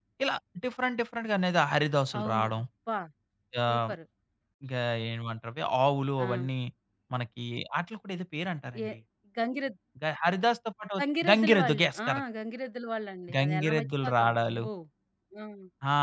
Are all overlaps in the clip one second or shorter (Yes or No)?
No